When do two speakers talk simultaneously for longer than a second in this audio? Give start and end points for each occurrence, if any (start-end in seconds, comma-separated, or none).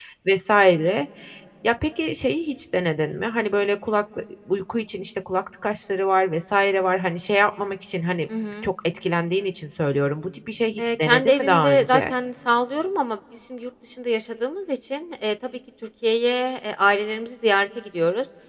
10.8-12.1